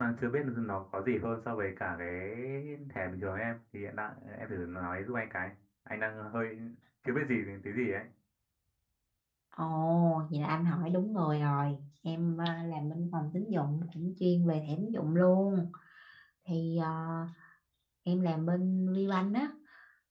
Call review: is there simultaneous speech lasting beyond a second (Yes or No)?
No